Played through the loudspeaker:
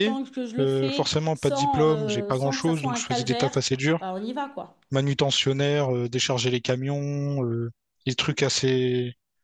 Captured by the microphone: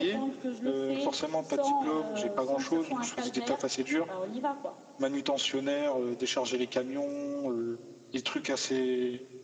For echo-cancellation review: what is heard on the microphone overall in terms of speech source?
echo only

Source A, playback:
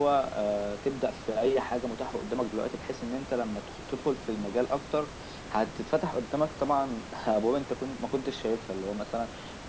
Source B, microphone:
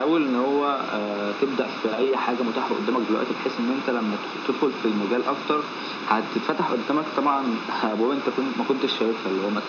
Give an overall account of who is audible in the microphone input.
echo only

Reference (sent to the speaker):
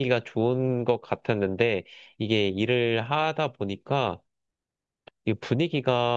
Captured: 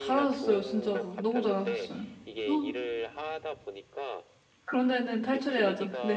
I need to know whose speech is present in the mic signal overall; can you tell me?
both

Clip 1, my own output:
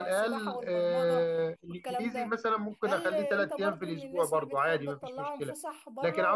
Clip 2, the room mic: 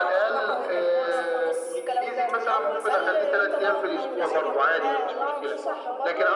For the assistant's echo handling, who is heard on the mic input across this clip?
both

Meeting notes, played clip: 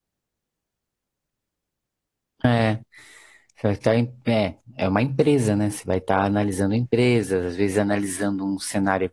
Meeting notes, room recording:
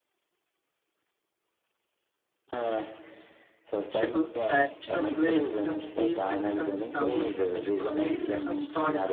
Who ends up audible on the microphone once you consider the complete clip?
both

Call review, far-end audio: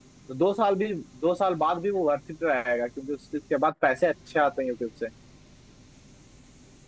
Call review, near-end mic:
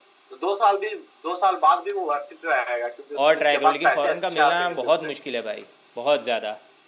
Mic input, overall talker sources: both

